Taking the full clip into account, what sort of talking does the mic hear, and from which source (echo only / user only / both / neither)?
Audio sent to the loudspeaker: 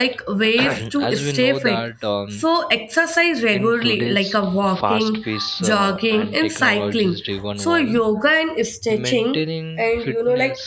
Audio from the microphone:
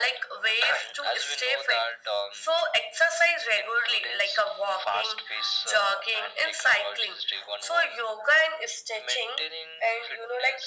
echo only